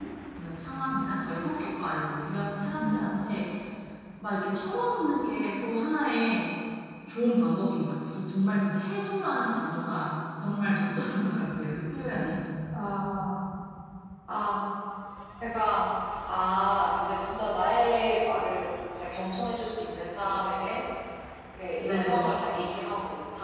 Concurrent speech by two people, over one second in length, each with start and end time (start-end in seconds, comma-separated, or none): none